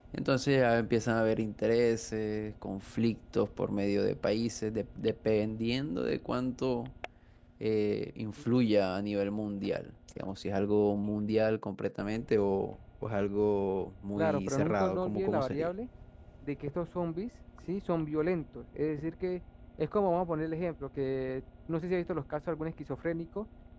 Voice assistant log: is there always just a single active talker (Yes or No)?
No